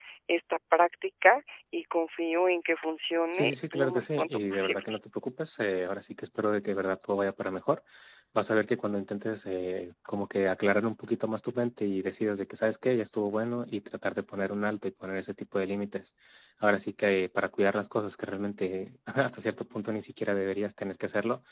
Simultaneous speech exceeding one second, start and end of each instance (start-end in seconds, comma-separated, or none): 3.3-4.9